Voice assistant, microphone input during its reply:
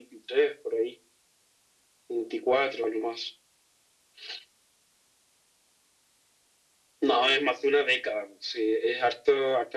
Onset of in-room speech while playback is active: none

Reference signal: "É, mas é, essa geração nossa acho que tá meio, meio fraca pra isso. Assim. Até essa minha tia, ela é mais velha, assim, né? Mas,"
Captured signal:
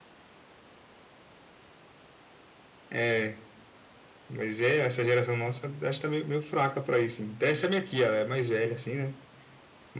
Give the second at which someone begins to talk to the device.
none

